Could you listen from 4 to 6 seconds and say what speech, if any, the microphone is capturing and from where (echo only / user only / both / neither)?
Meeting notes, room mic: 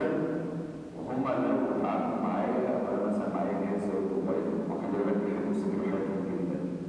echo only